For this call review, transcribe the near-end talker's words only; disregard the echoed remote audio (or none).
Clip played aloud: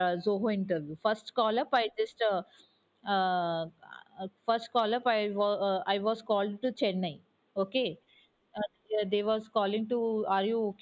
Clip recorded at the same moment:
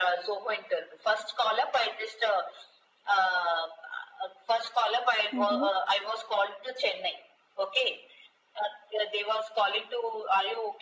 Mhm.